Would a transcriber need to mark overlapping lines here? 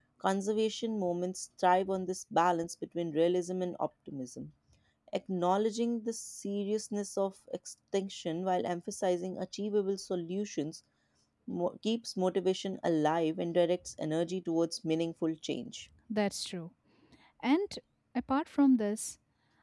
No

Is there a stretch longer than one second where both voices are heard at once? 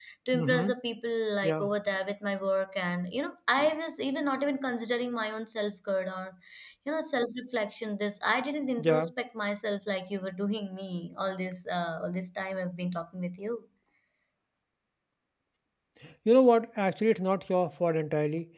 No

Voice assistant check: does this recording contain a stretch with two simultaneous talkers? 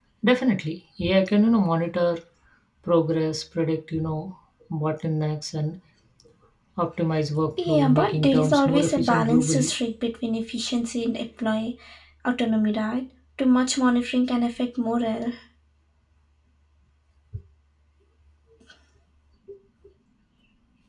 Yes, from 7.7 s

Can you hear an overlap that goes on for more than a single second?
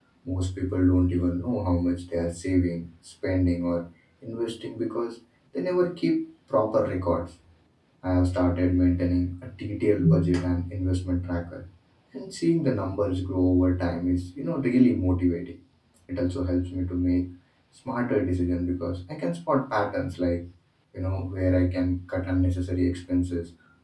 No

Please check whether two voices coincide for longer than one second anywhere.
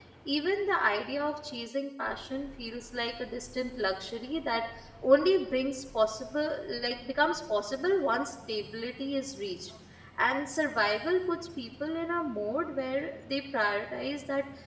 No

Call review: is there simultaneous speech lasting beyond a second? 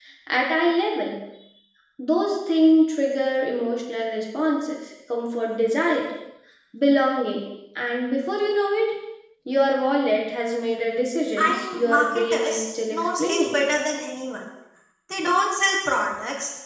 Yes, from 11.4 s

